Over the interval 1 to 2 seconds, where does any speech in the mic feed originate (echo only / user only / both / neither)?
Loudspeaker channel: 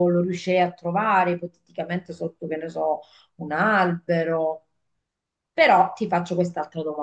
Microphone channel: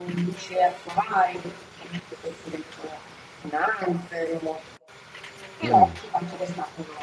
echo only